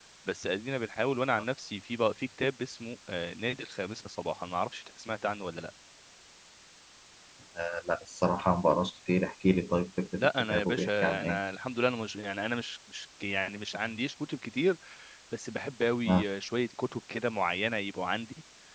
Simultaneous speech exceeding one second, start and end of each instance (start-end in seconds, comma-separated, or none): 10.2-11.4